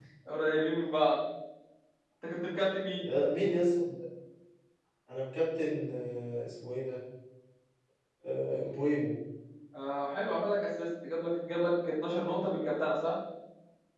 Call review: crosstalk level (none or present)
none